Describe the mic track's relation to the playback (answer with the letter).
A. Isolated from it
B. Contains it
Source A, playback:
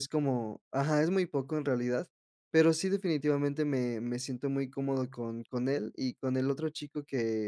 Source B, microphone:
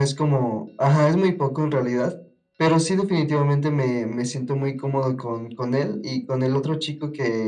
B